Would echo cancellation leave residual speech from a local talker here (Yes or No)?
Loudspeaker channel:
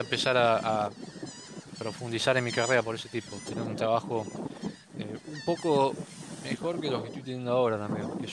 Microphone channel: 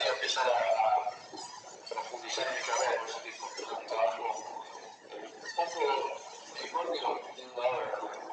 No